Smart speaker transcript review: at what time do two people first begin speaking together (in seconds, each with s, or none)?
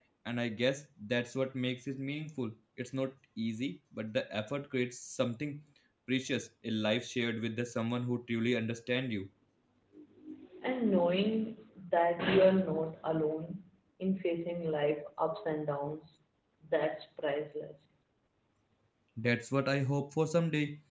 none